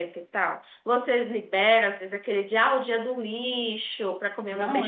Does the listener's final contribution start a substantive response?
Yes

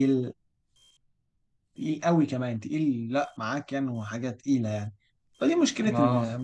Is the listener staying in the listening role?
Yes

